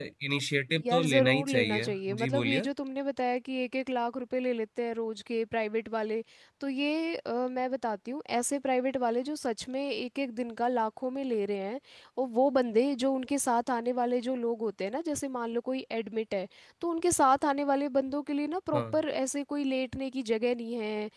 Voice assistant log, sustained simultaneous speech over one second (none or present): present